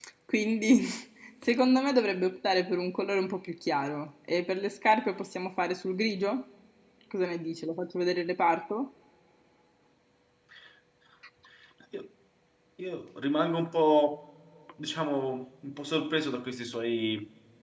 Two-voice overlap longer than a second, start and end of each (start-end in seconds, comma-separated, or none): none